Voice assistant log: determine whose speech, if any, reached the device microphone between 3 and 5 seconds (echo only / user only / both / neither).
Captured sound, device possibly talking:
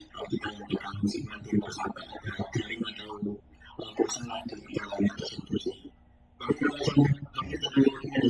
echo only